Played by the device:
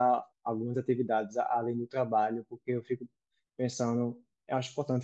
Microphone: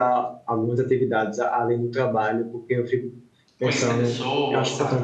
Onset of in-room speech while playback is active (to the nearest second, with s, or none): 4 s